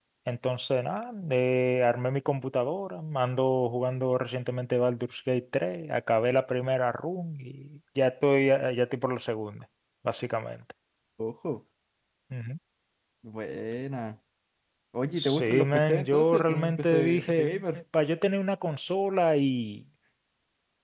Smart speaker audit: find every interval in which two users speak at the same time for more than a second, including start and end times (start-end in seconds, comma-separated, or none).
15.2-17.8